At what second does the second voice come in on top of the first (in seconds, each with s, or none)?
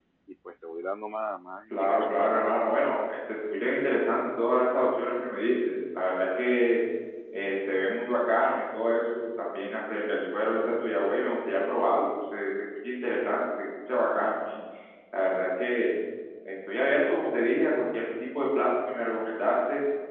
1.7 s